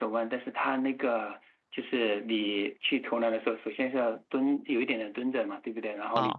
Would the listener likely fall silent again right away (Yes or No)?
Yes